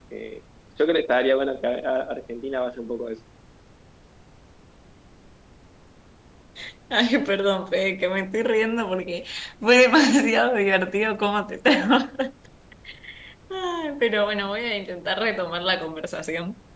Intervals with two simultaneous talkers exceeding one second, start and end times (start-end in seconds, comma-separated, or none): none